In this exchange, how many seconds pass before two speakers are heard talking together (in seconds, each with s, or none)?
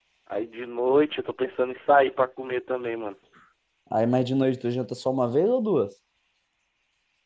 none